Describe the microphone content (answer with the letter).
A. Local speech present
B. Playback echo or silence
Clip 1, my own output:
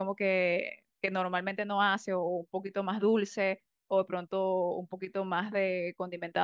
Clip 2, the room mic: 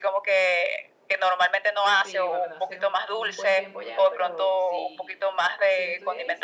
A